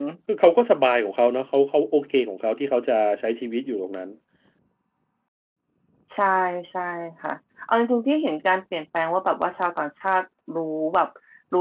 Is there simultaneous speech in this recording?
No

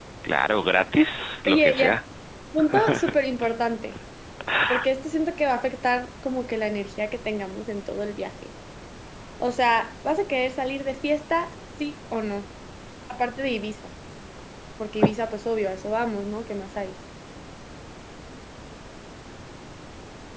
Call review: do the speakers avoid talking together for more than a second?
Yes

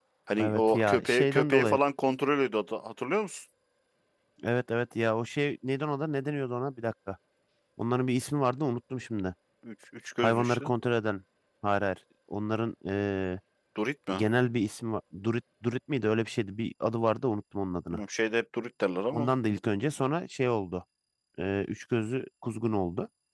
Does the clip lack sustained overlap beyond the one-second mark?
No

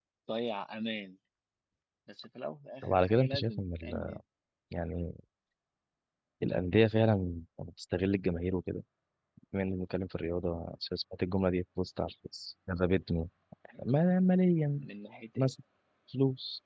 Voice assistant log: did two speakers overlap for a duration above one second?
Yes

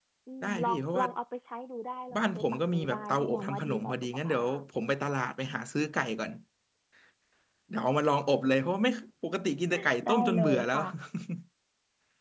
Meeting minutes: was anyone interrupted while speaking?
Yes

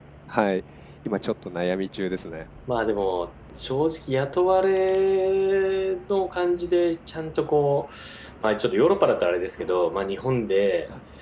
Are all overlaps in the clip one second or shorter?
Yes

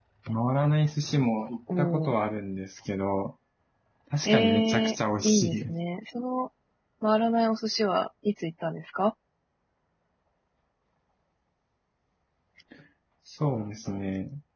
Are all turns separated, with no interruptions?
No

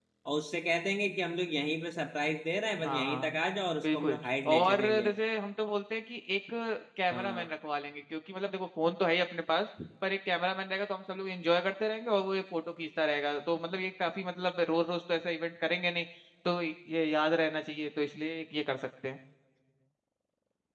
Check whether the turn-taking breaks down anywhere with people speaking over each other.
Yes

